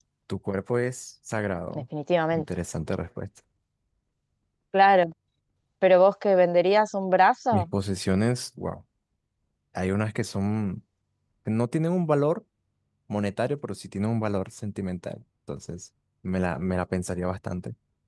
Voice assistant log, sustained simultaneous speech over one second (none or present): none